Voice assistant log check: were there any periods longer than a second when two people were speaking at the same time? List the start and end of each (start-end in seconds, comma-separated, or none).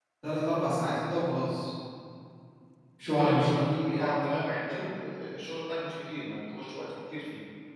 none